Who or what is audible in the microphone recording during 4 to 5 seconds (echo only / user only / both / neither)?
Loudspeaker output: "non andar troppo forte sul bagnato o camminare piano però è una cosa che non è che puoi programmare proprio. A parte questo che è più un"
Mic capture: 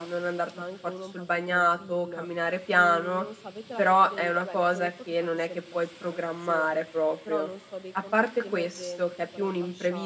both